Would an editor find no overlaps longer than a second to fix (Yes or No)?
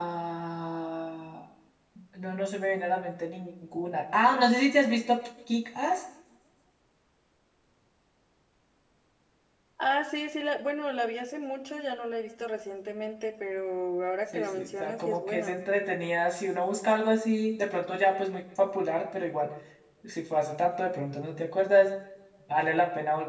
No